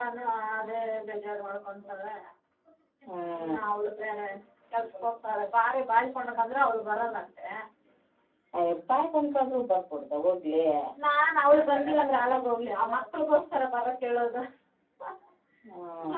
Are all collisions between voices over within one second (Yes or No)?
Yes